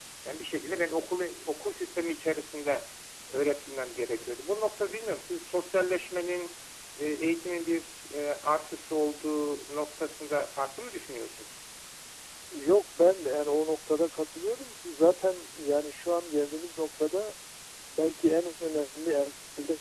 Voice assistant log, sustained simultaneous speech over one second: none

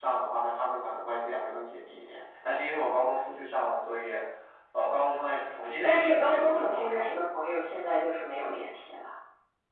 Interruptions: present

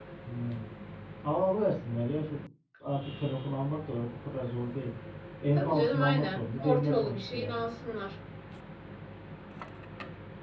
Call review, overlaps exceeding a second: present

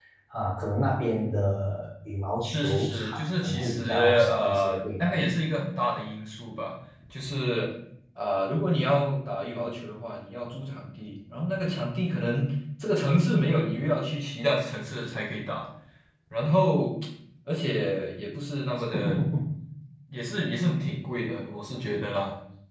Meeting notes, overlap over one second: present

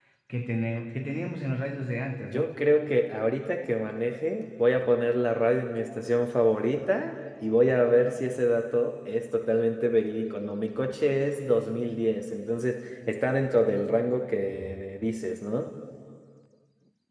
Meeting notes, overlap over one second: none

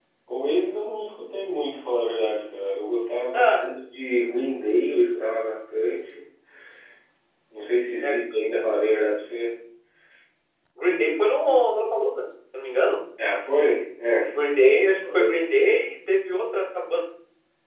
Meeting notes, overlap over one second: none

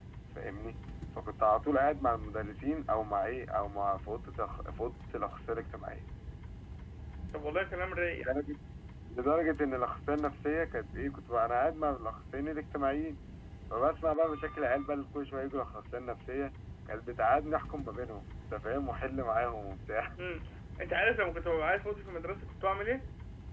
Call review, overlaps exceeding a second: none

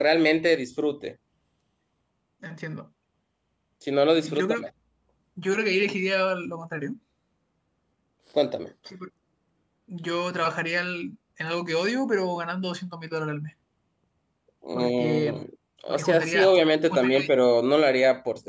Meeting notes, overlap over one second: present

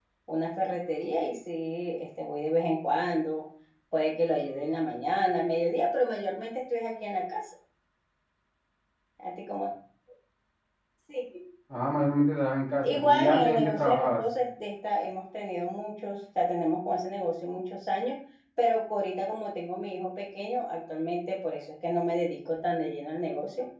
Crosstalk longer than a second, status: present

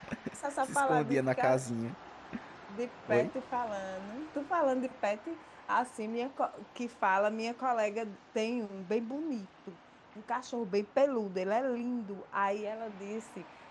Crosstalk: present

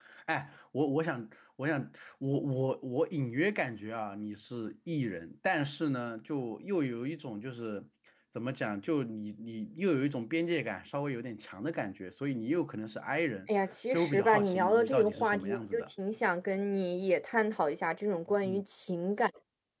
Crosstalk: present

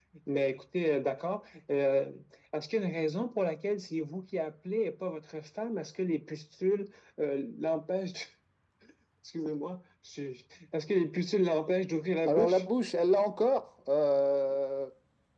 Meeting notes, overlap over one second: none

